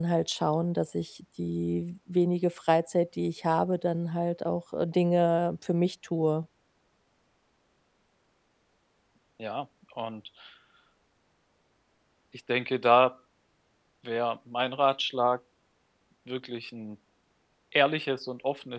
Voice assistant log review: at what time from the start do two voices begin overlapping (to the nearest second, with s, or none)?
none